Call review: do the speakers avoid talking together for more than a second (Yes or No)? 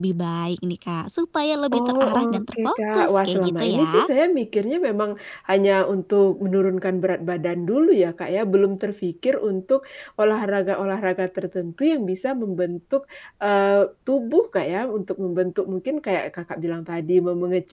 No